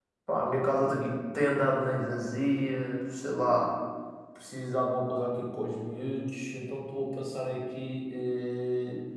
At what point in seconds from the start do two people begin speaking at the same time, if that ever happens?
none

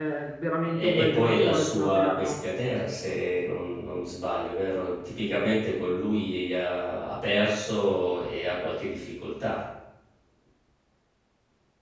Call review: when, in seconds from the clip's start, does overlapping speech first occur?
1 s

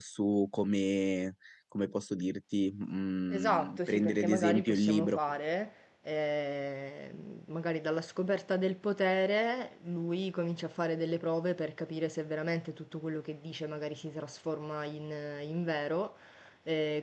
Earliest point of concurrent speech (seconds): 3 s

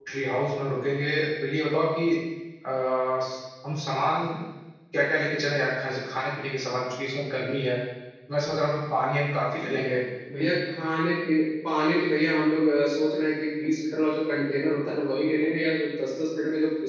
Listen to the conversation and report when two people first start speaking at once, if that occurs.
none

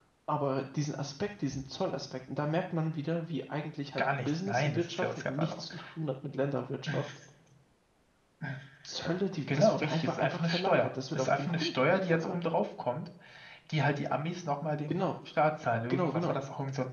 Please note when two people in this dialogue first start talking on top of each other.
4 s

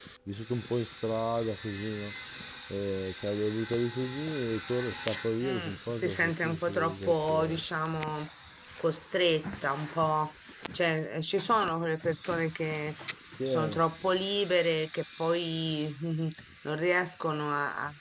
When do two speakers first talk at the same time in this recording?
5 s

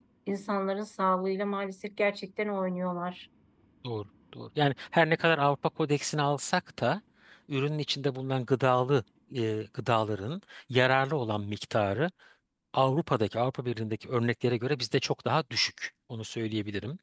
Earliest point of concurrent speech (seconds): none

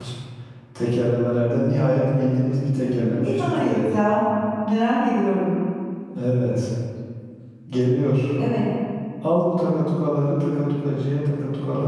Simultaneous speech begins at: 3 s

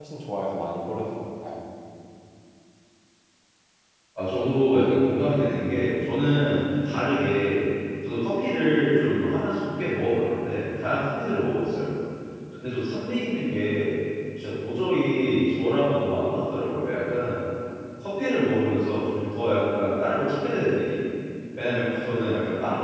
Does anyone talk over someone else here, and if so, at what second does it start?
none

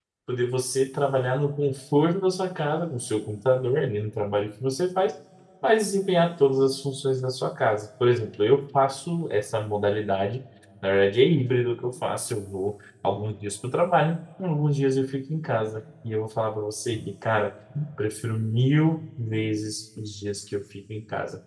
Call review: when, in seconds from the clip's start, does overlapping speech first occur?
none

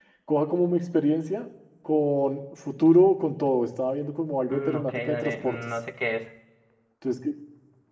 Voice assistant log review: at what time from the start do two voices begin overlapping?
4 s

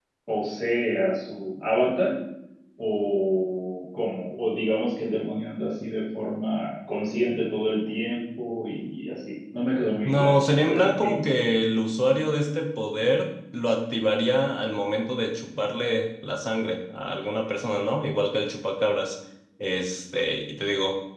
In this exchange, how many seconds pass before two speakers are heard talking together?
10 s

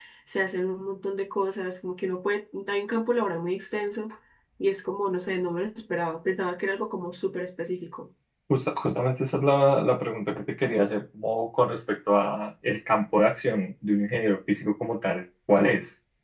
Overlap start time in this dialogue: none

